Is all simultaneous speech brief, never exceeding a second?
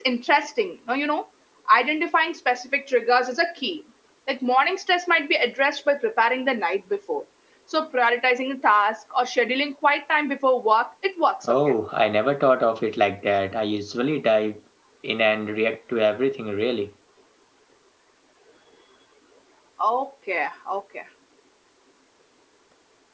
Yes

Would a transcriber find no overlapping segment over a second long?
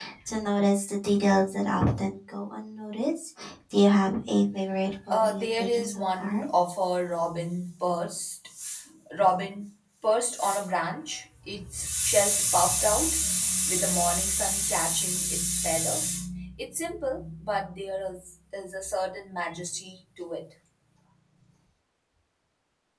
No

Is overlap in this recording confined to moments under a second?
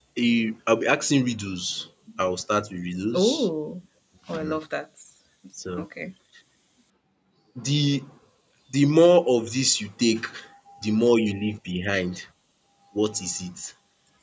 Yes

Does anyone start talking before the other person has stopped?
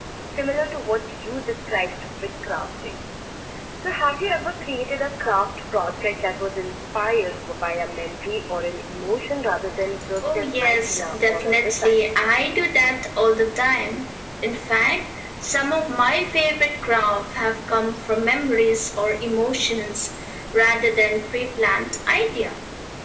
Yes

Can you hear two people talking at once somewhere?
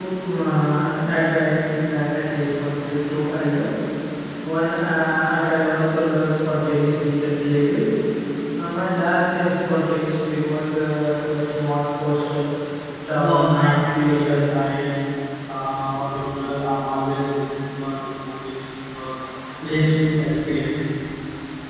Yes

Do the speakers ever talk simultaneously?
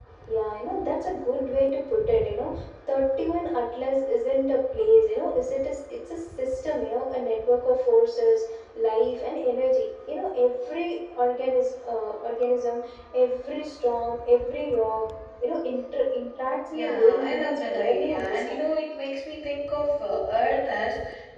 Yes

